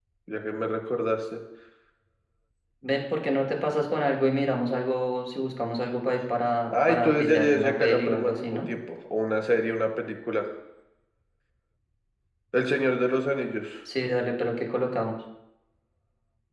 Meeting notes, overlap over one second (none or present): present